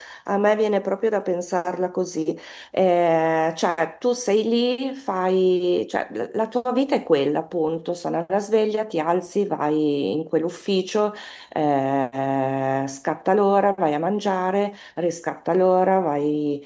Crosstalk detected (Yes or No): No